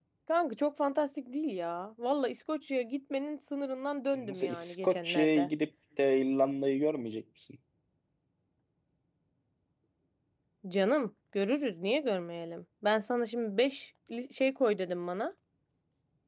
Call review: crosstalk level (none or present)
present